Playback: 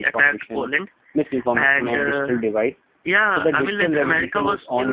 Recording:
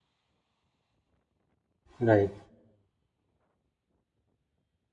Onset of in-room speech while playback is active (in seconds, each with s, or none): 2.0 s